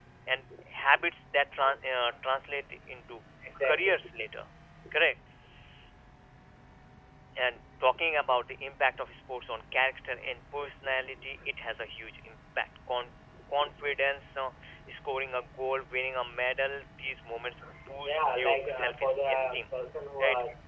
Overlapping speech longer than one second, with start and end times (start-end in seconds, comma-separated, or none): 18.0-19.6